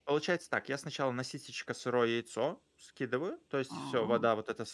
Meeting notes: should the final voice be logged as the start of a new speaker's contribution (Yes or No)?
No